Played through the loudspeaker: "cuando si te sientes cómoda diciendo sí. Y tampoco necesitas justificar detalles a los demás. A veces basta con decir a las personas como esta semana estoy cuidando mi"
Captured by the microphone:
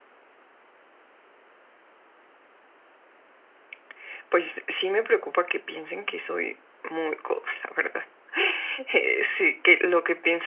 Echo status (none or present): none